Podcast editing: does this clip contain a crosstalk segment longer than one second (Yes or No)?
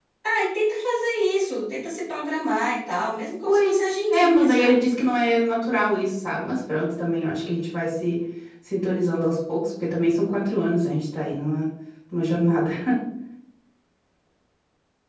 Yes